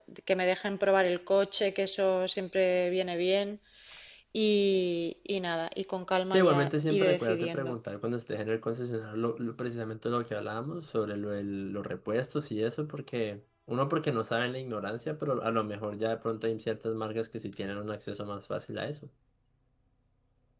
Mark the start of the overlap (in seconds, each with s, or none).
6.3 s